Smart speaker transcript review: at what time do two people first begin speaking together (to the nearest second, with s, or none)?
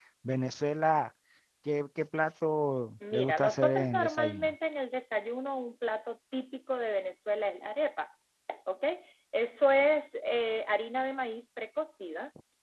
3 s